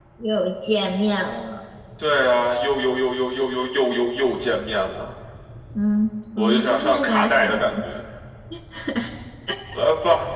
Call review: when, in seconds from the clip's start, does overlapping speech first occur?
6 s

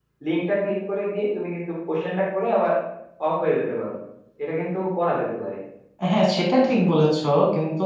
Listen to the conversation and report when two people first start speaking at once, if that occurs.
none

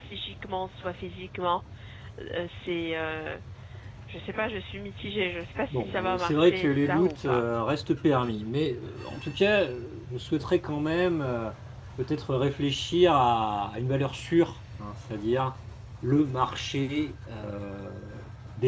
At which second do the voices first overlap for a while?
6 s

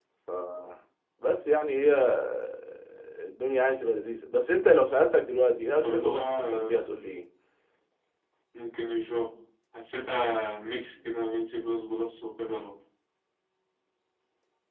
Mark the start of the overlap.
6 s

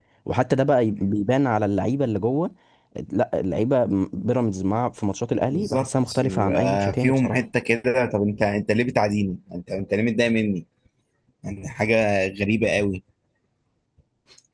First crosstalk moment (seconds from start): 6 s

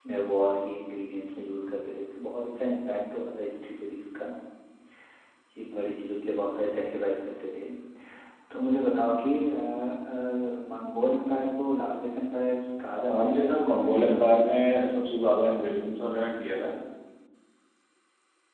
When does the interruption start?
13 s

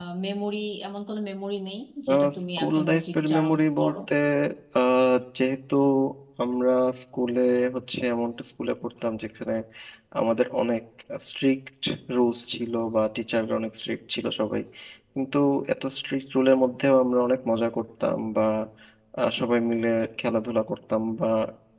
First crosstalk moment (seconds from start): 2 s

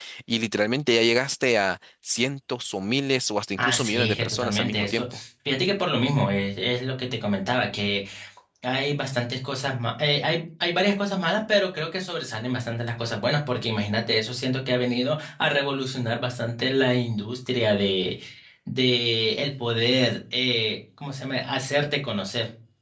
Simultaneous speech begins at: 4 s

